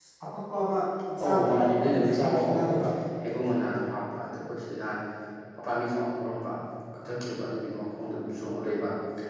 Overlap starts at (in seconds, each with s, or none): 1.2 s